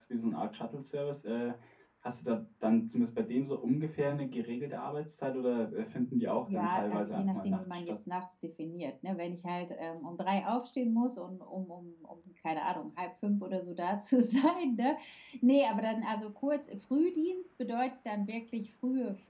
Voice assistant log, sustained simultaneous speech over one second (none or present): present